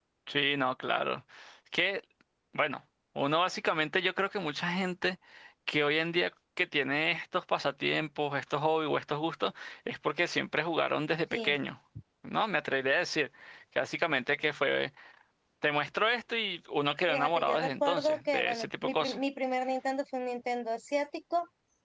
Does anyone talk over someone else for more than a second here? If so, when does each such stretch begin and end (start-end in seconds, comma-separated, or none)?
17.1-19.1